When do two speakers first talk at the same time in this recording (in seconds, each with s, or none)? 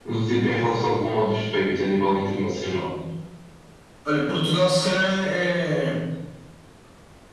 none